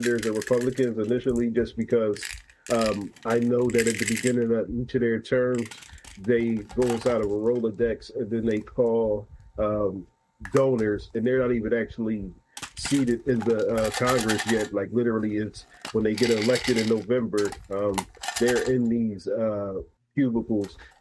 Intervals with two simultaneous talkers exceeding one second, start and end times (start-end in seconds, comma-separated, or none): none